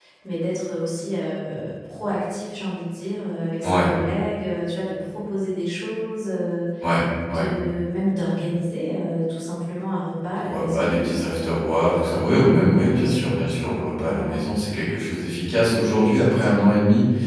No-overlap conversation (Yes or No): No